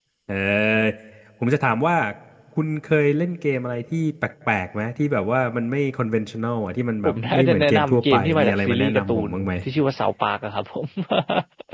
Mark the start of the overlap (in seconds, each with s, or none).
7.0 s